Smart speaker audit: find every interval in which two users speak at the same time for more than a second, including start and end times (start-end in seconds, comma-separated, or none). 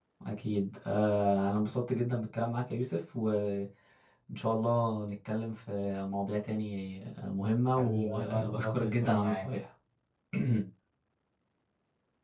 7.8-9.6